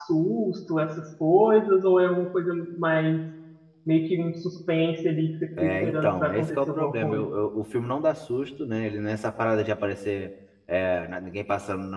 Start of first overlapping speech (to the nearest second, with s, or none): 6 s